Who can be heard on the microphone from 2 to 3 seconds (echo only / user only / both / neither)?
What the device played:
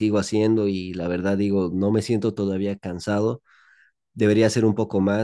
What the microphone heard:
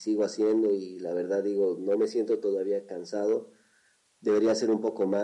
echo only